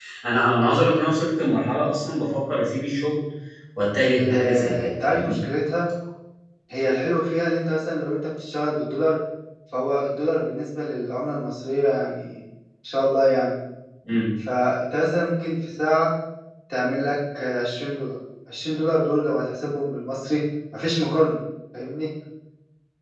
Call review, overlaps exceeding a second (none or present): present